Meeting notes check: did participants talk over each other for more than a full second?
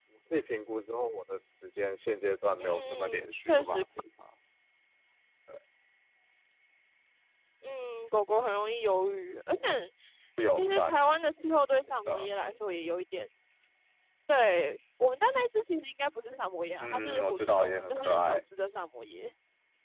Yes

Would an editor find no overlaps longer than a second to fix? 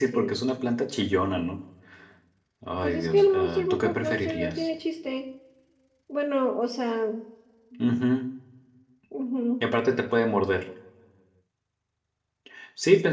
No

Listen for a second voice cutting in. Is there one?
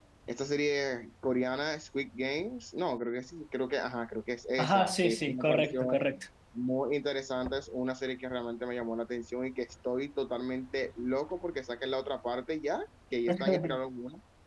Yes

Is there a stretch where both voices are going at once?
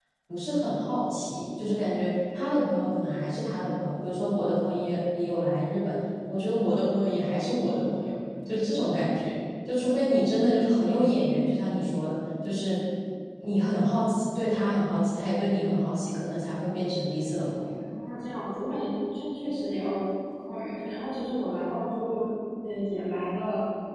No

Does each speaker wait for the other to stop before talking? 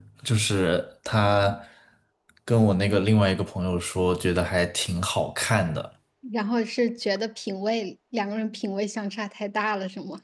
Yes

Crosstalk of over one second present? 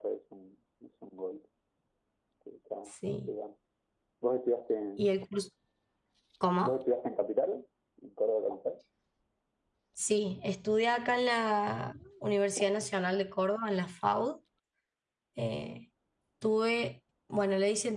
No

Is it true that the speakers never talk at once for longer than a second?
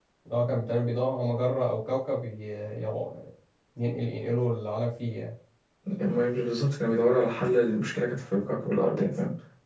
Yes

